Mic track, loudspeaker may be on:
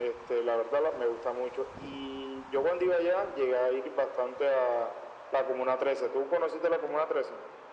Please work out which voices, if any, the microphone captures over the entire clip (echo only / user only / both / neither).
echo only